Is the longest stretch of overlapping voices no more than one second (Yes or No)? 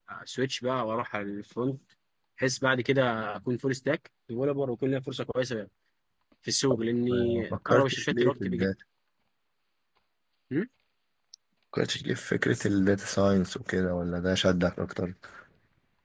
No